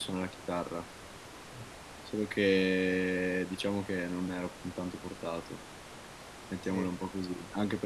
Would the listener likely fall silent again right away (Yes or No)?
Yes